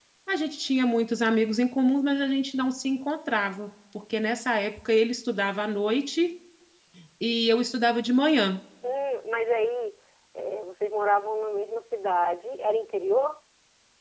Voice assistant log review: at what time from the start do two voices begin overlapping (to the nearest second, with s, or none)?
none